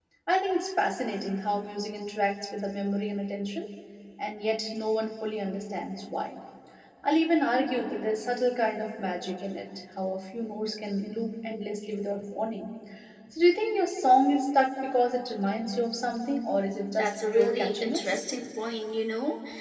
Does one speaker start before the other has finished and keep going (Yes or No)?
Yes